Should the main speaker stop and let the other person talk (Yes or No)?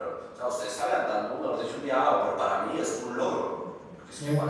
No